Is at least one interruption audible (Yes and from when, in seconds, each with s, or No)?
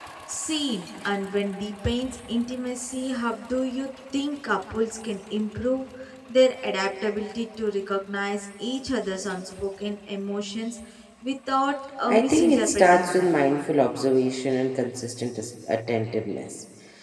Yes, from 12.1 s